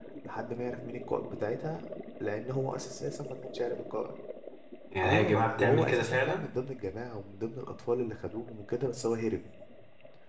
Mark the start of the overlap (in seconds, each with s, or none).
5.0 s